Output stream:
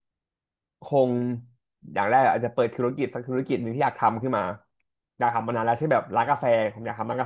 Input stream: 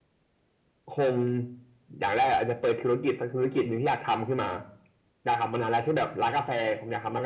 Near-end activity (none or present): none